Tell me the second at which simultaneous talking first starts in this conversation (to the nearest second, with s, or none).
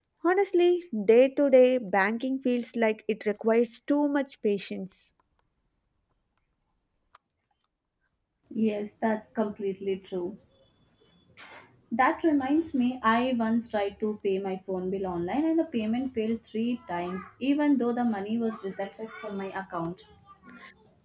none